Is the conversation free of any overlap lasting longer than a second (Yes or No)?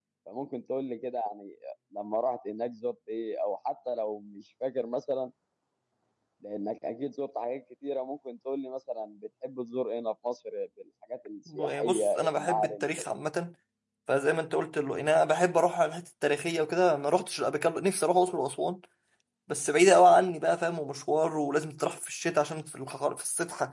No